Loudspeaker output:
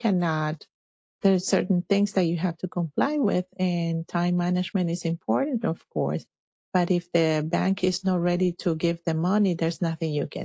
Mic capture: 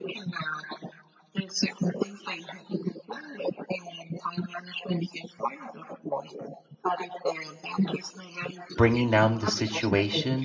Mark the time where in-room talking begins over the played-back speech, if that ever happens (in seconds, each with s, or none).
8.8 s